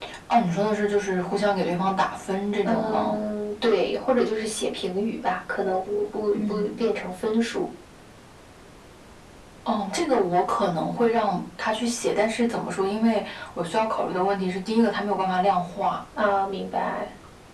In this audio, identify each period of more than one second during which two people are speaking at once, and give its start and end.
none

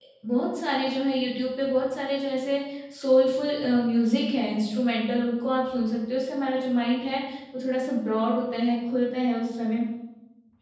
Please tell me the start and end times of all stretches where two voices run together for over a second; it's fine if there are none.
none

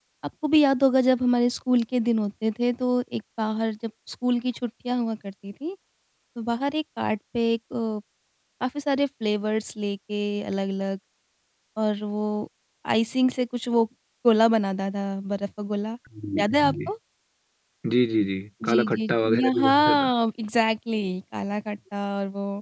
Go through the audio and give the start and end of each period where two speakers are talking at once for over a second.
18.7-20.1

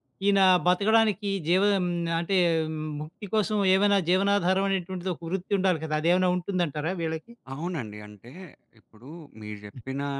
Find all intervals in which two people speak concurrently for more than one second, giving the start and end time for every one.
none

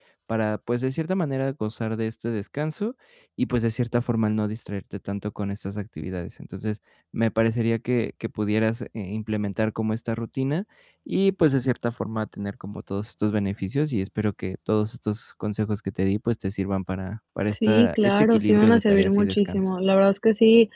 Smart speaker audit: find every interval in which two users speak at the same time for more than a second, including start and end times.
17.7-19.6

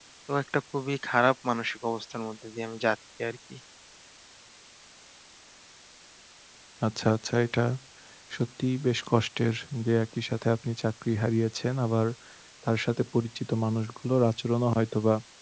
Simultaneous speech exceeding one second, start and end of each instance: none

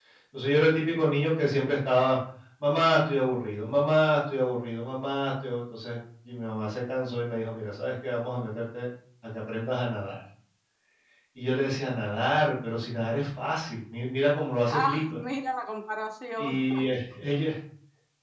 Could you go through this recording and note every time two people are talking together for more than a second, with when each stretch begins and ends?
none

